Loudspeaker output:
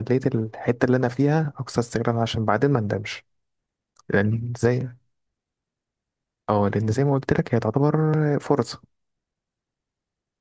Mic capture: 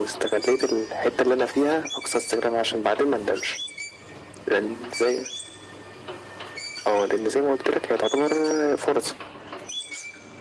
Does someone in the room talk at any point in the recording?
No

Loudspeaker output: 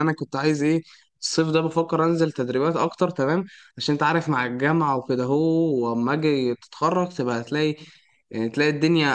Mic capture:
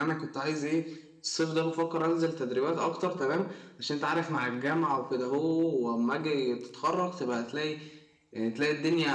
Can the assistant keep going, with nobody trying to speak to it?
Yes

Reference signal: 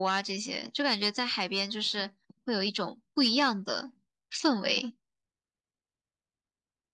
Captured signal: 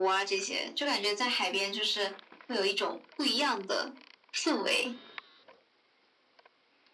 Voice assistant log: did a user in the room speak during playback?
No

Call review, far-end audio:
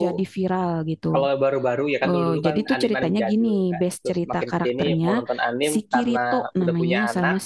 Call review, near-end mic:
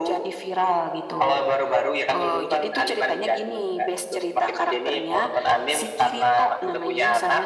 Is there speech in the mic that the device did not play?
No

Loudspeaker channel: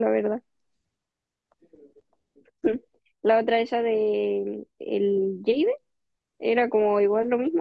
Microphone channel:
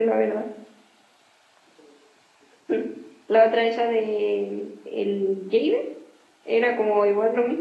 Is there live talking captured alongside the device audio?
No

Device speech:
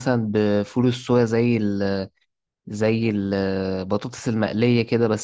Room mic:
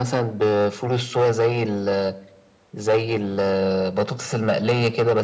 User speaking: No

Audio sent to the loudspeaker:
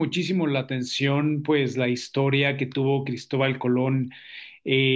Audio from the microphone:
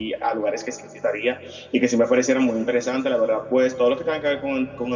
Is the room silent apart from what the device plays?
No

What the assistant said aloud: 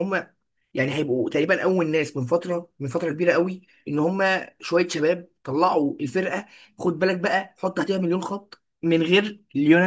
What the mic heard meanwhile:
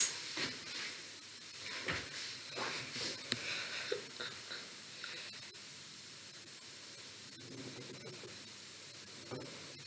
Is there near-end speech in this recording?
No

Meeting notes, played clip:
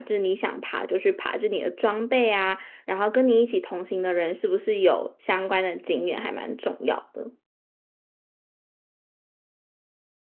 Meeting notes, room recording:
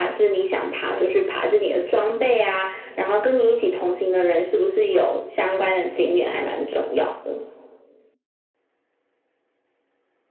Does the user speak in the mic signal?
No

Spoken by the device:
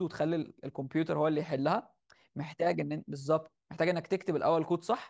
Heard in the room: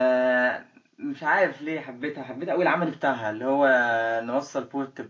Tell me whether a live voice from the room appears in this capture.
Yes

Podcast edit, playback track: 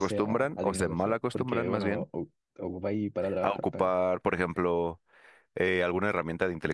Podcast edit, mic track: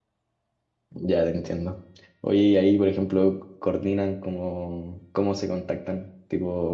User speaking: Yes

